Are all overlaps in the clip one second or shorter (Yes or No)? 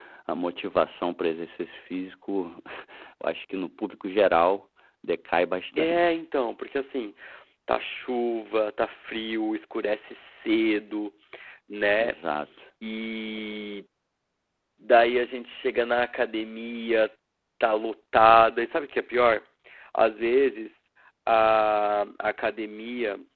Yes